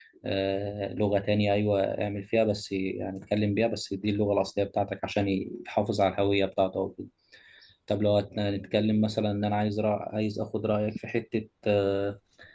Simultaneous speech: No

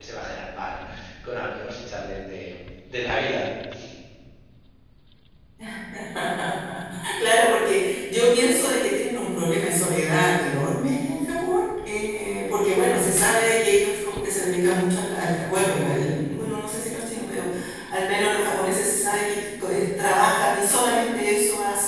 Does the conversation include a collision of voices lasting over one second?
No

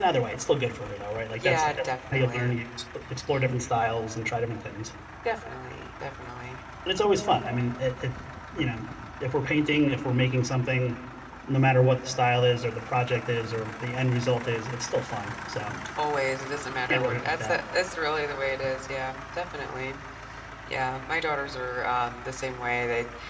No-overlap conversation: No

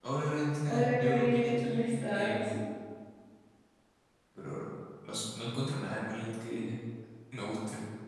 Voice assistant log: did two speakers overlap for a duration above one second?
Yes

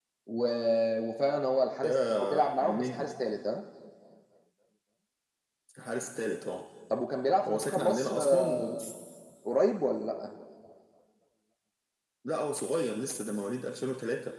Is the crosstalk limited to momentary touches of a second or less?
No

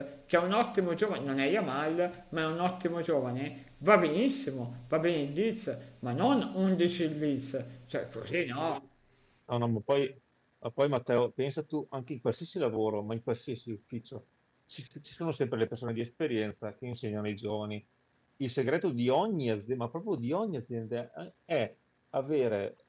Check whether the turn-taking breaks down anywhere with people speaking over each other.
No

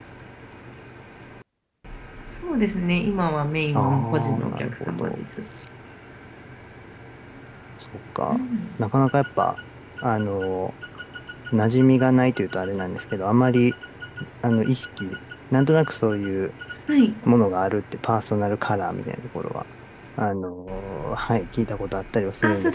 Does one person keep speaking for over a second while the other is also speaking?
Yes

